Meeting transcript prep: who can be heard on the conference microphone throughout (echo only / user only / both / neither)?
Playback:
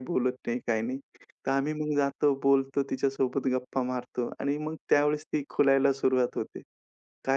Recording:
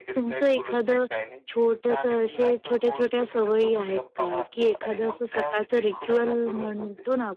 both